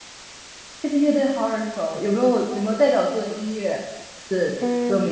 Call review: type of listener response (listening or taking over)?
taking over